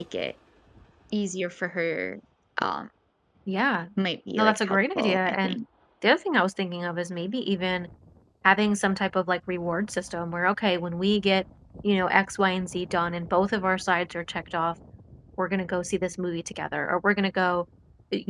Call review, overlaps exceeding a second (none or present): present